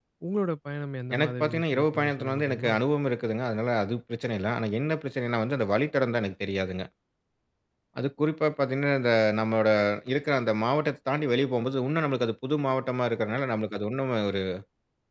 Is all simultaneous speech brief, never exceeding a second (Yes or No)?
No